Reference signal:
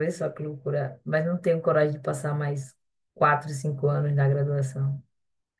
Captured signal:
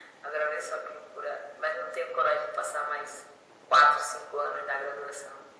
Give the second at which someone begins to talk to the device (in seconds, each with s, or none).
none